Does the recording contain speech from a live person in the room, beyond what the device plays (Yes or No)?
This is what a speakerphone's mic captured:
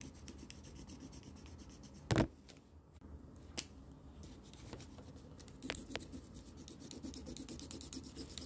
No